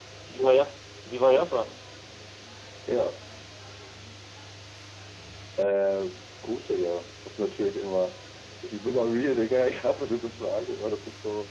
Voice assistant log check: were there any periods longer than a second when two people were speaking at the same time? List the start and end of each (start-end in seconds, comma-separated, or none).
none